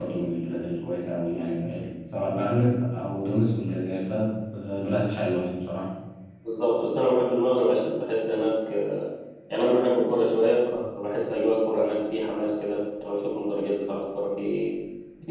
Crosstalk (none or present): none